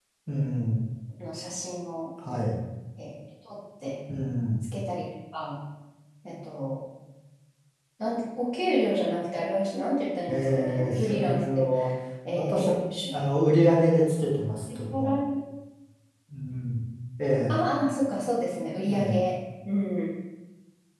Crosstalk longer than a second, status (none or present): present